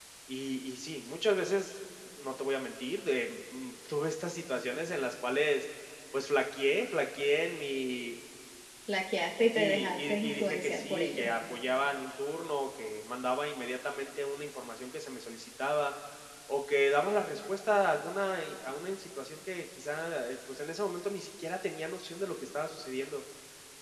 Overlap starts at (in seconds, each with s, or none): 9.6 s